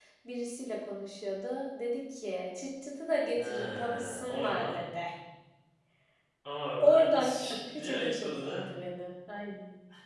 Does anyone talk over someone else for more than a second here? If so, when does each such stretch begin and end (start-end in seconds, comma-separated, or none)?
3.4-4.8, 6.8-8.4